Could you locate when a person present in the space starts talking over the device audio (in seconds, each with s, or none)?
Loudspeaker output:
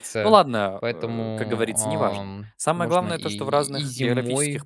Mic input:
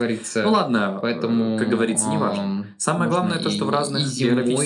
none